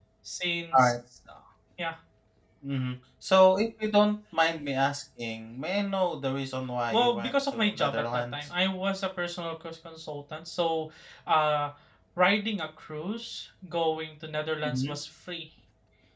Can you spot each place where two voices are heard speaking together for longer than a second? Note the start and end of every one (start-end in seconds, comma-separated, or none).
6.9-8.3